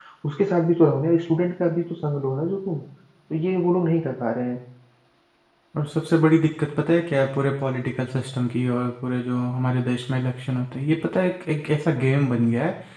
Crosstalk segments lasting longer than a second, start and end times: none

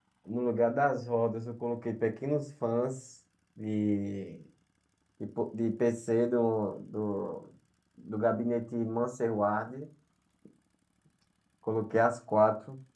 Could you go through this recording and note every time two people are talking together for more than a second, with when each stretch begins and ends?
none

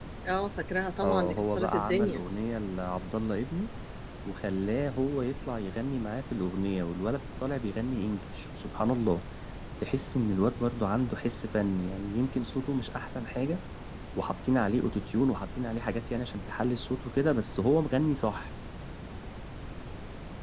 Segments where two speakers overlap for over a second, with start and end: 1.0-2.2

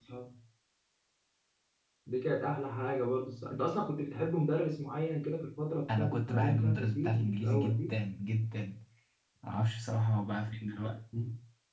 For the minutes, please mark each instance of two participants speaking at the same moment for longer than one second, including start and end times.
5.9-7.9

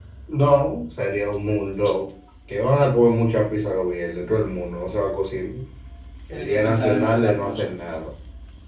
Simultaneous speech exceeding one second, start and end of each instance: 6.3-7.8

